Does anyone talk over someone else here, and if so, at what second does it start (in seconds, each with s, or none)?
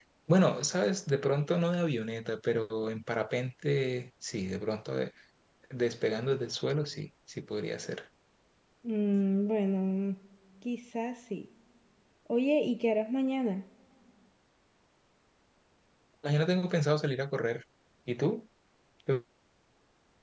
none